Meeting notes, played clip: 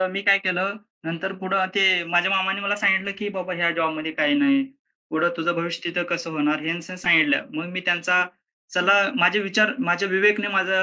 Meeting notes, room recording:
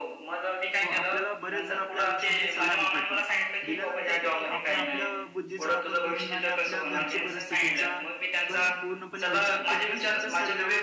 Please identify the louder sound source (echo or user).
echo